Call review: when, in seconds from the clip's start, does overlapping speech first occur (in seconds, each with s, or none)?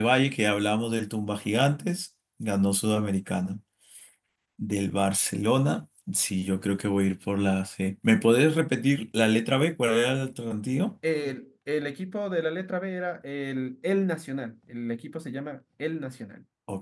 none